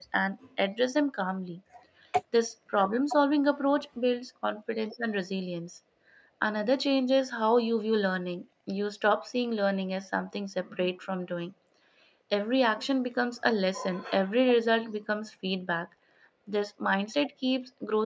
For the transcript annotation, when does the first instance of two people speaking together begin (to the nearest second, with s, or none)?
none